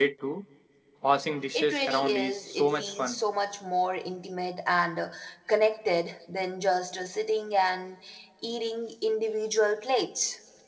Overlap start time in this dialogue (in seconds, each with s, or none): 1.5 s